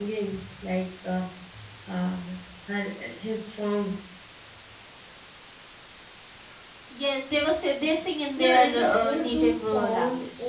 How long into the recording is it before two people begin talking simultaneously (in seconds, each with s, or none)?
8.4 s